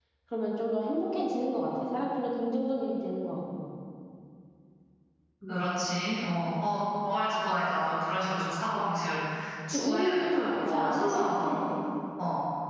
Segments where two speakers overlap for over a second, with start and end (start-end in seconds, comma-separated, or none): 9.7-11.5